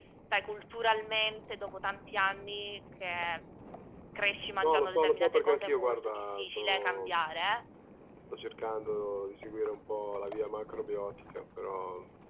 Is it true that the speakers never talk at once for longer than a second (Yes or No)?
No